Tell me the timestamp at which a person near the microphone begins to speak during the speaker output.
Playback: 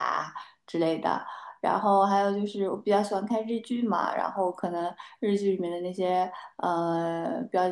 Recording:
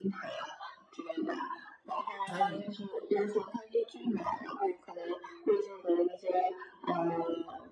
2.2 s

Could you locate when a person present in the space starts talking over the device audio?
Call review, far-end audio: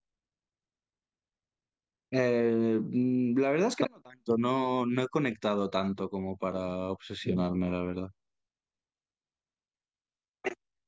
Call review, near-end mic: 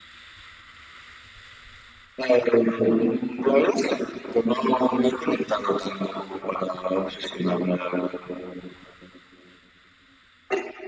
none

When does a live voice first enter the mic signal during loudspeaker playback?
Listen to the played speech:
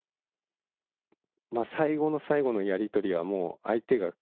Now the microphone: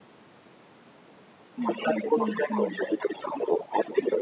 1.6 s

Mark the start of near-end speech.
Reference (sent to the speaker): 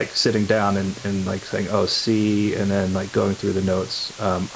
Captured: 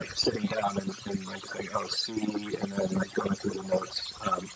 none

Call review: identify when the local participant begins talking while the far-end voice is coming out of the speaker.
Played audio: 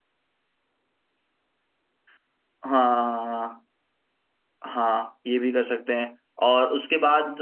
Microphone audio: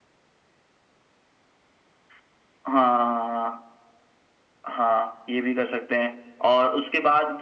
none

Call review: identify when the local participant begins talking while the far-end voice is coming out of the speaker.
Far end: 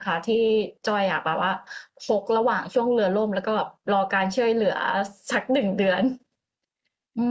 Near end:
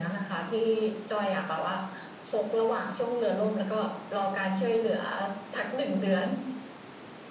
none

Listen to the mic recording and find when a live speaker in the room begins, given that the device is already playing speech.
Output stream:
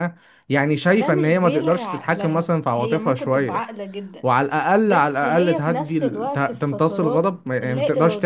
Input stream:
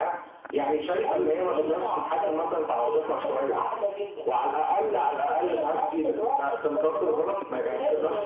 none

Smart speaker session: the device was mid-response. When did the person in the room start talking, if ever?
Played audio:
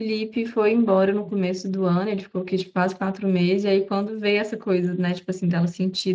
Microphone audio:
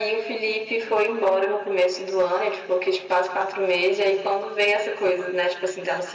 none

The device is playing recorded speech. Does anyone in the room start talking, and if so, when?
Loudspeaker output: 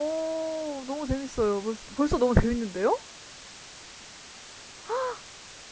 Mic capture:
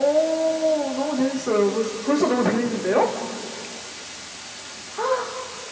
none

